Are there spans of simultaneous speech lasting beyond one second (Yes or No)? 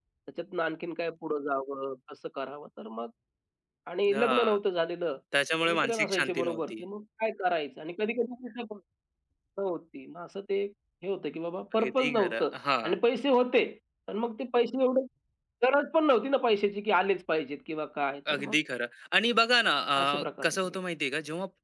Yes